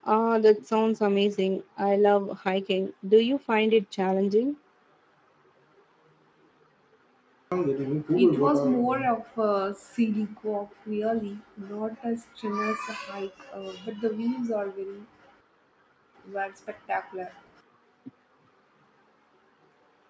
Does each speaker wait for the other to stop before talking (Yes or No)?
Yes